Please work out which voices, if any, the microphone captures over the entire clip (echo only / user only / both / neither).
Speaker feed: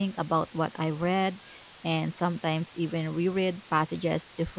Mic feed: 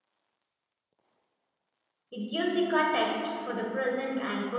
user only